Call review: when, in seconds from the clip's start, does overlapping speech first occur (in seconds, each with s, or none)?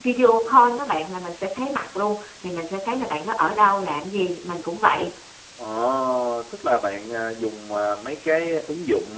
none